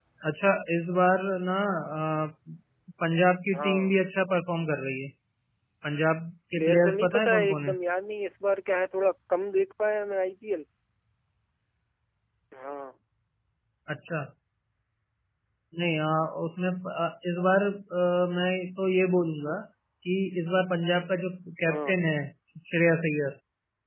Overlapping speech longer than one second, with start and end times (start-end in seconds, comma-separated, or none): 6.5-7.8